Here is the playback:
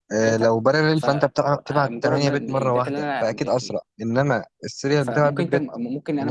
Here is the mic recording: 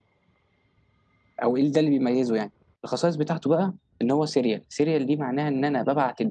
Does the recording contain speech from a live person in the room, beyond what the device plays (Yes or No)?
Yes